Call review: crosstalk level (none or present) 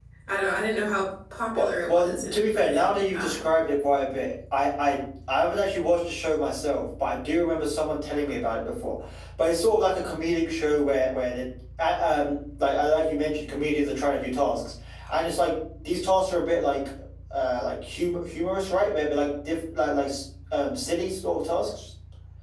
present